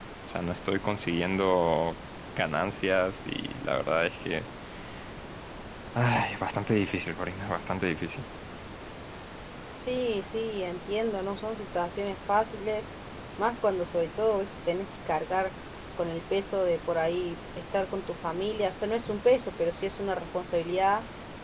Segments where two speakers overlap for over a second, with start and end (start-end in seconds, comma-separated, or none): none